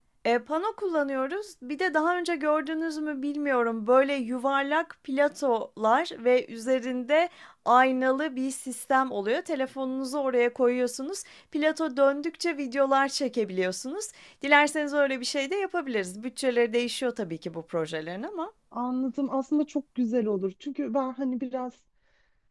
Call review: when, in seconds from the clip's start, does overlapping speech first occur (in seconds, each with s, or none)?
none